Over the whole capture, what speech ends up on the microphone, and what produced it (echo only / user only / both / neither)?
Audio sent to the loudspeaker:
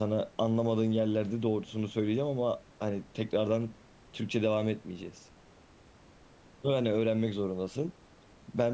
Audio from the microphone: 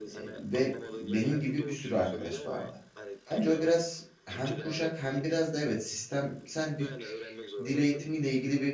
both